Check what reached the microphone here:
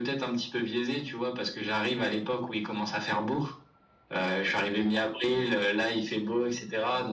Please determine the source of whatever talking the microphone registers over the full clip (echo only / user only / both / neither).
echo only